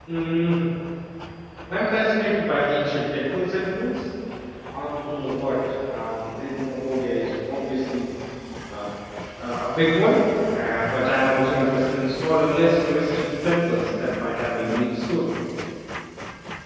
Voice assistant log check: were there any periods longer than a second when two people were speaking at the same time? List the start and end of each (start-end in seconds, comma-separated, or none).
none